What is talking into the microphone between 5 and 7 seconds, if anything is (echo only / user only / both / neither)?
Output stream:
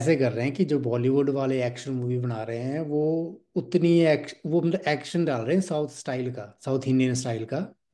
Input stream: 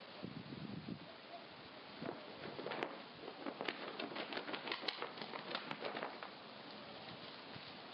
neither